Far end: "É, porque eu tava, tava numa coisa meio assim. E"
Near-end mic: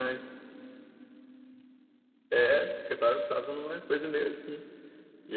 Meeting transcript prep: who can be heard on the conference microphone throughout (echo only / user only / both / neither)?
echo only